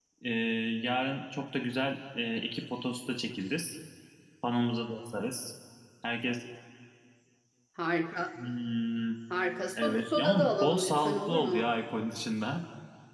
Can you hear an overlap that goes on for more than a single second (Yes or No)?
Yes